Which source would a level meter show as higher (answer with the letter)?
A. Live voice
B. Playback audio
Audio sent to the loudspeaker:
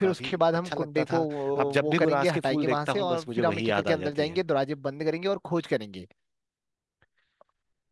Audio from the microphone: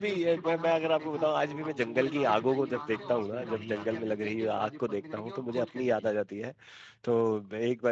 A